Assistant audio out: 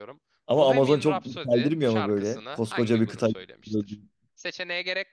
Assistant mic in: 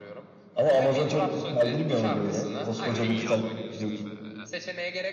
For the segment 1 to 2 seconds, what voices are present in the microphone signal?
echo only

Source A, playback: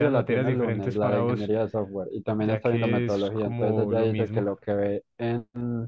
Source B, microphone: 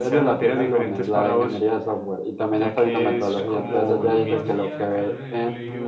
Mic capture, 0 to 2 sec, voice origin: echo only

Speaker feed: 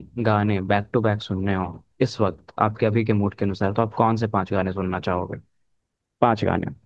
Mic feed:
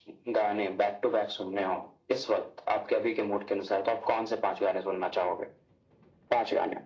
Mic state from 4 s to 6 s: echo only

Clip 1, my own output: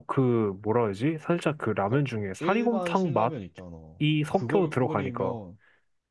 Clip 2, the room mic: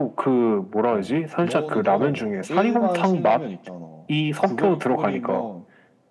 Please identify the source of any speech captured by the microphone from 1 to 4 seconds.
both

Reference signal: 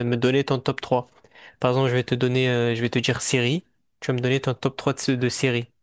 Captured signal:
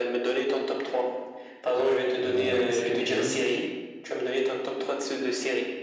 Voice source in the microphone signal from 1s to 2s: echo only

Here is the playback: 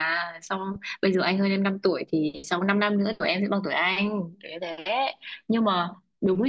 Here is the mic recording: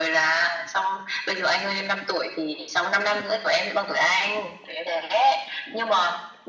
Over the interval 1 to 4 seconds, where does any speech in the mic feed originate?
echo only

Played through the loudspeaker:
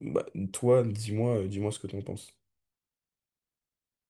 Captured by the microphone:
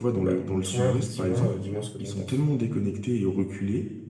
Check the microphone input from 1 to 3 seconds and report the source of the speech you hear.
both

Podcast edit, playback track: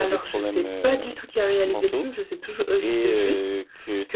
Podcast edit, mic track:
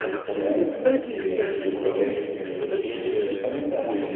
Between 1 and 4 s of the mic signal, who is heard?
both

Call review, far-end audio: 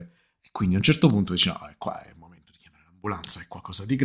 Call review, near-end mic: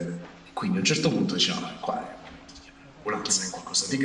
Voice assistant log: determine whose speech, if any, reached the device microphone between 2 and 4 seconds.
both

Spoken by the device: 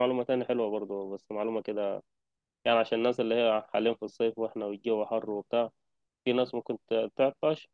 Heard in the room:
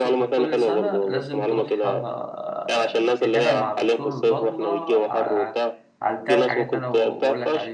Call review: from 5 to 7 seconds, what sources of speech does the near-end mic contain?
both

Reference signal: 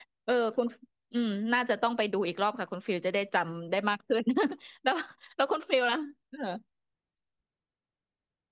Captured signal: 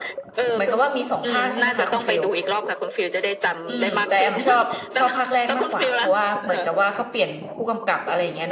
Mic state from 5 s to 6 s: both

